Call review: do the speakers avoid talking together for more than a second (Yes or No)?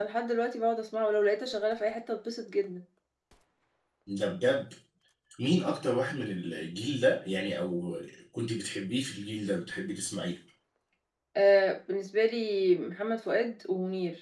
Yes